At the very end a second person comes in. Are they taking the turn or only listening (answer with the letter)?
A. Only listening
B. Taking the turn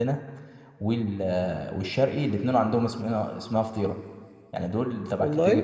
A